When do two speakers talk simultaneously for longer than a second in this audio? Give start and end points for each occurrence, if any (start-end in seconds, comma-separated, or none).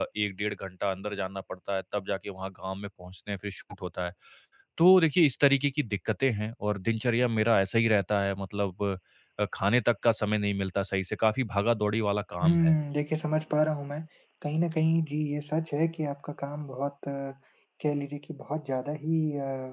none